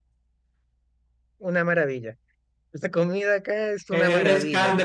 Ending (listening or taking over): taking over